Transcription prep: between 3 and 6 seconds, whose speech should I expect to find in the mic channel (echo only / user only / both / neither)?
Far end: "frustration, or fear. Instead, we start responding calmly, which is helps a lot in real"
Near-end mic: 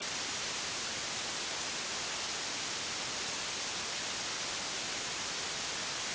neither